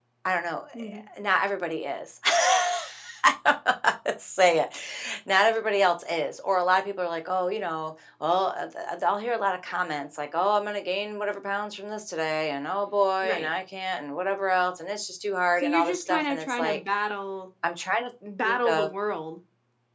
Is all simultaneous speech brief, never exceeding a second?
No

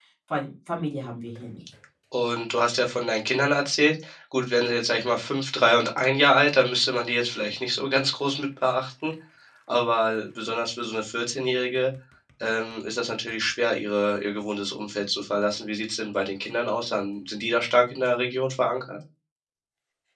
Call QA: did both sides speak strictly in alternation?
Yes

